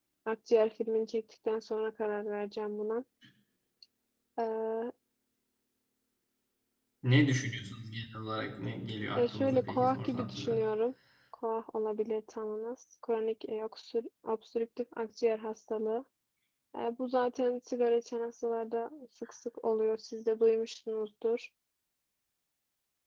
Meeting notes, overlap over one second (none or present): present